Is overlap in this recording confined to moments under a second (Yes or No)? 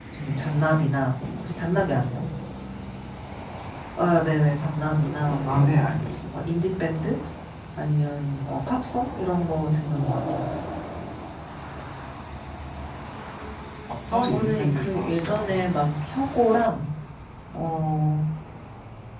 No